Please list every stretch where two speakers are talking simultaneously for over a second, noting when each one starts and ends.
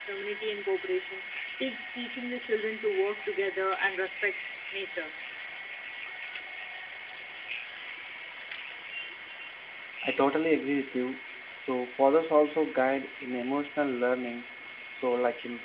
none

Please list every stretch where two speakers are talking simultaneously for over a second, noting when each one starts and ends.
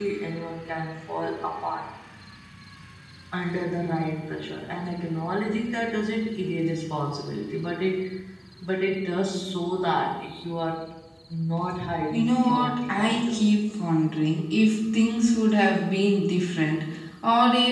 12.1-13.4

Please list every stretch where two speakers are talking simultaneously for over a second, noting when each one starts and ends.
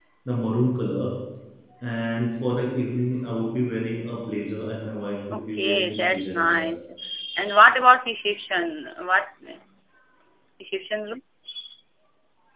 5.3-6.8

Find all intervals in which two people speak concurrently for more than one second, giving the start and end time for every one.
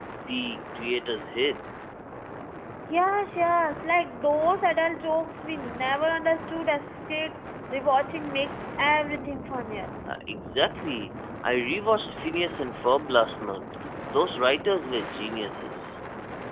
none

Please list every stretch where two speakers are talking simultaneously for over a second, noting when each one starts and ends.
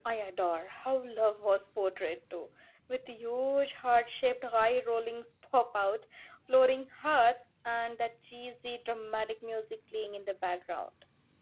none

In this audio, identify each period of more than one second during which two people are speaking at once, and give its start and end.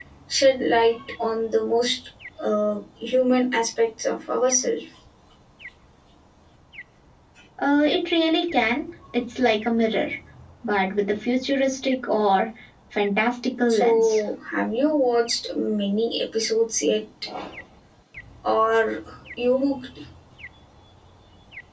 none

